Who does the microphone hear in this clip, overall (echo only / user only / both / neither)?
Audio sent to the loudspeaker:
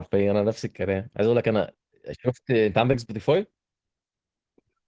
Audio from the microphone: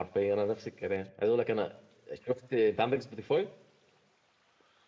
echo only